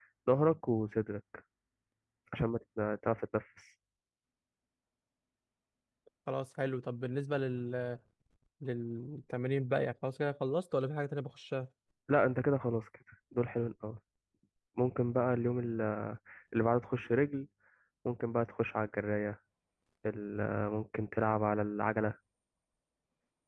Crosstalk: none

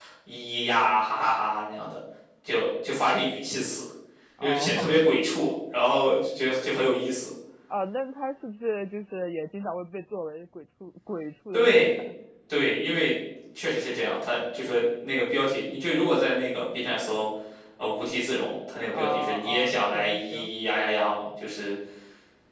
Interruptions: present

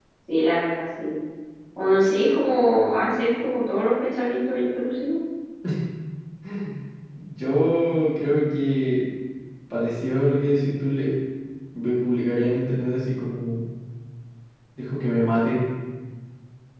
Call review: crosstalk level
none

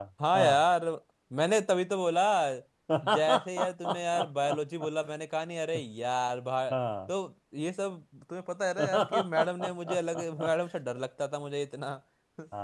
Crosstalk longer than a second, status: present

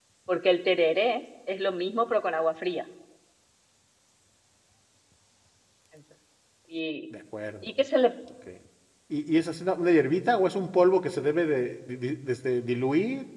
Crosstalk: none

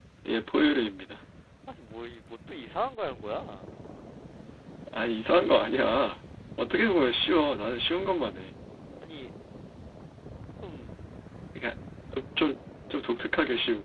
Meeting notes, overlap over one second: none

